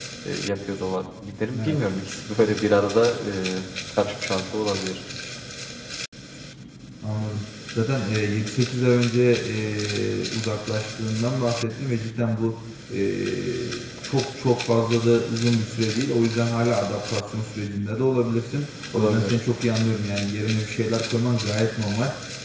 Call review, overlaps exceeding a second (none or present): none